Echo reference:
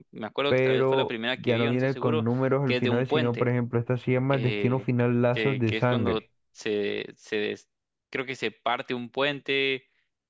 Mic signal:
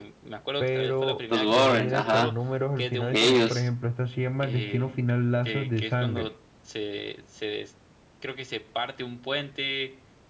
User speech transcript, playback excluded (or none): los Warren, ajá. Ellos,